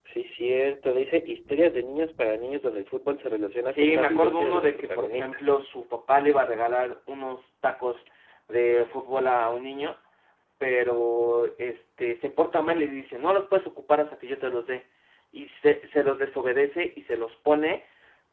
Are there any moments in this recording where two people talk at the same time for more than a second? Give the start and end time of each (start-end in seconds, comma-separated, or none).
3.7-5.4